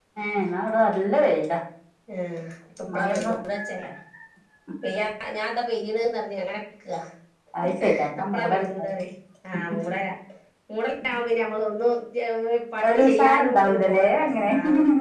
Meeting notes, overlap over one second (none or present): present